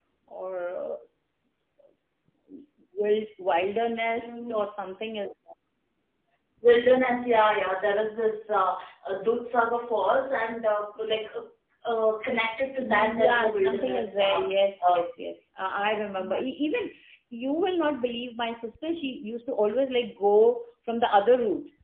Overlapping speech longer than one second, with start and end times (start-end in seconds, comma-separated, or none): 12.8-14.4